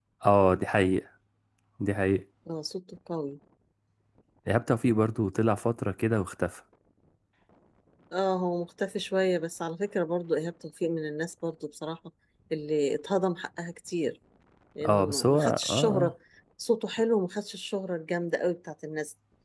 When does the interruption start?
15 s

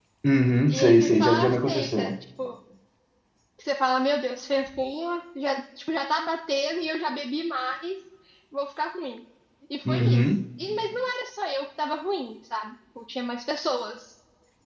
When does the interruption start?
1 s

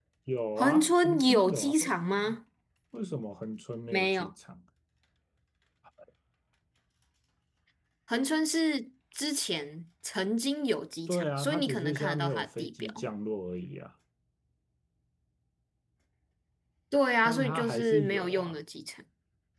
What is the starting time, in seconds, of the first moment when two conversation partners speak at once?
1 s

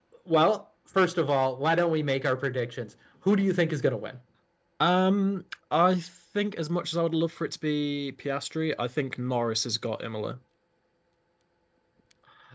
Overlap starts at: none

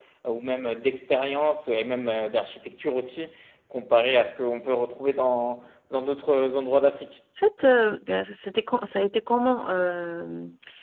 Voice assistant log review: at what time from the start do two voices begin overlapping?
none

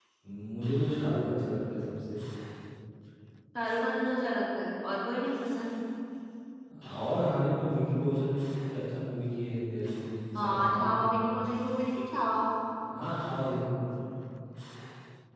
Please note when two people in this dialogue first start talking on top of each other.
10 s

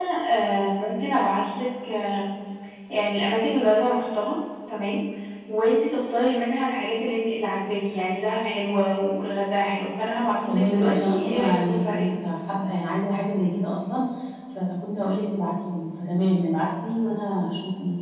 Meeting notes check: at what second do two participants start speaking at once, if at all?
10 s

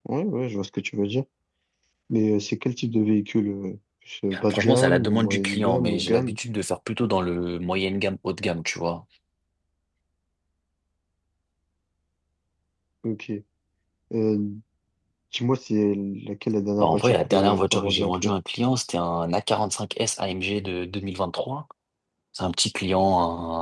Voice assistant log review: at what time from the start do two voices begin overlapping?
5 s

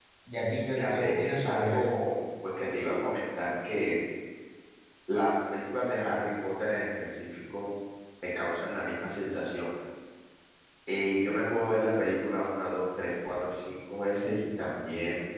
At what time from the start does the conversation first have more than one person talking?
1 s

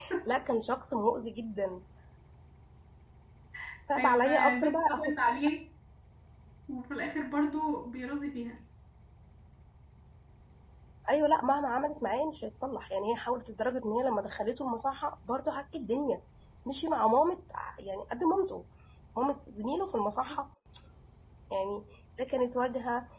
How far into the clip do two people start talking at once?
4 s

